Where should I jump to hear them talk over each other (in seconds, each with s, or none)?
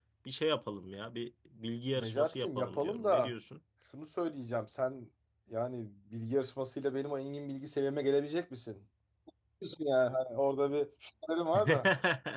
1.9 s